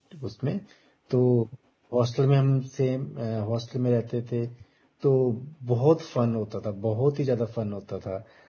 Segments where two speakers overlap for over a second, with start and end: none

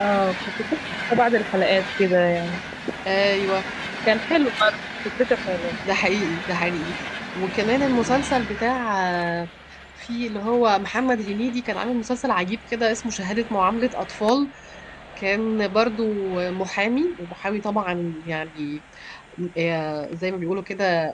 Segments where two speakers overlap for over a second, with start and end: none

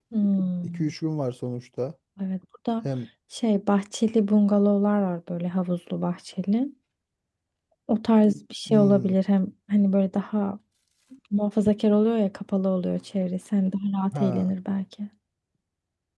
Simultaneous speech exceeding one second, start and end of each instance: none

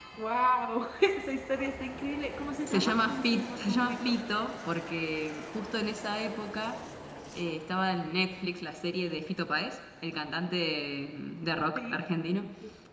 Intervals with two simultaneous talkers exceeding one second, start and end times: 2.7-4.2

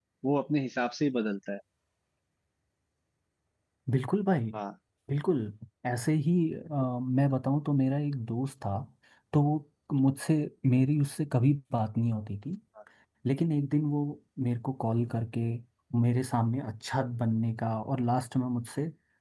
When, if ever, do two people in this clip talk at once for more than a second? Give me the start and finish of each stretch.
none

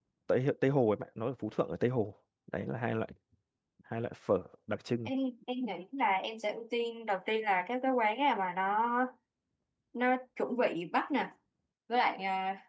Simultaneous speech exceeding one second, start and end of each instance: none

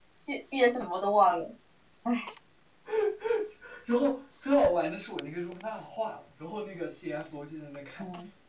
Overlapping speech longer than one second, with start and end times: none

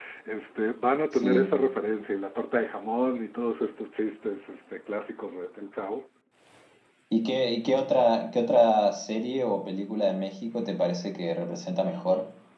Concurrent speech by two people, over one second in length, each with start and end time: none

